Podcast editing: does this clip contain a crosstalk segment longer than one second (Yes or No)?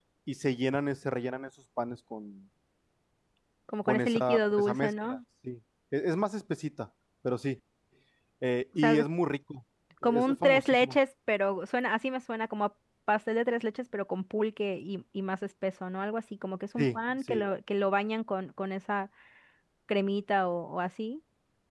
Yes